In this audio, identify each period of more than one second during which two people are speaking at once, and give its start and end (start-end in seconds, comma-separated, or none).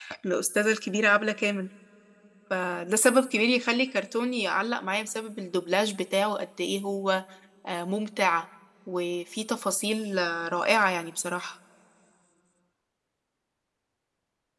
none